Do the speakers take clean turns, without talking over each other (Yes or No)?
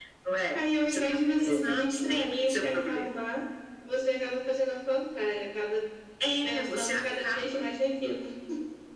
No